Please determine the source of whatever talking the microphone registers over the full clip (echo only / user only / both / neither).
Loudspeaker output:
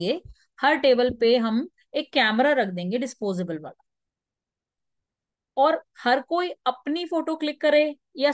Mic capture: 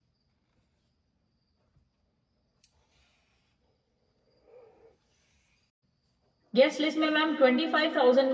user only